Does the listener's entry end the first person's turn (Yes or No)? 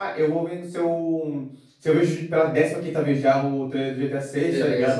No